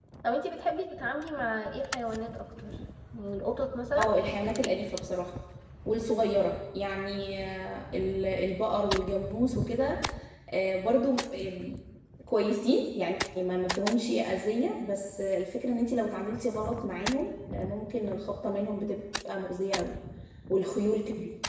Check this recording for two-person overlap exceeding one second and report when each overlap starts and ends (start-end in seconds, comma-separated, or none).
none